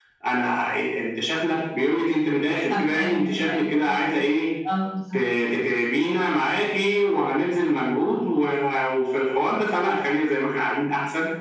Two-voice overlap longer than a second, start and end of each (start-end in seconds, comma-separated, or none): 2.7-3.9